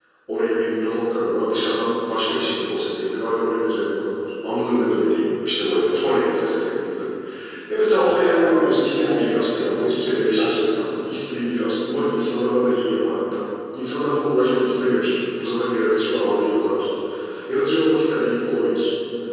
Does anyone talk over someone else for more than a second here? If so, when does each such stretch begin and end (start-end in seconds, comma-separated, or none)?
8.0-9.3